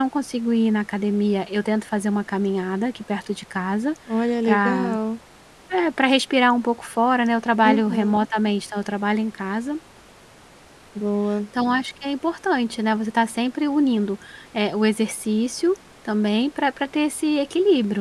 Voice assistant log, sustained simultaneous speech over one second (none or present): none